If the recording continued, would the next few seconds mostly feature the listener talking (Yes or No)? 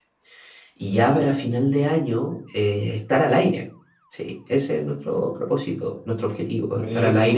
No